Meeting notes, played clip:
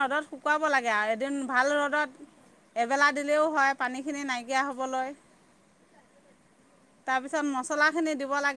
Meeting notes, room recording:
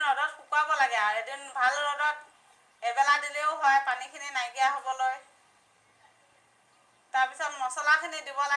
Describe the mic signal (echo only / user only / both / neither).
echo only